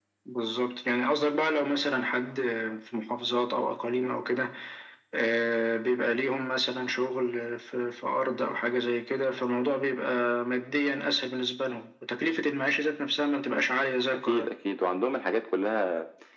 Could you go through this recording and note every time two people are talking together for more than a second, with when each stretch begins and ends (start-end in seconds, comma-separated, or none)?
none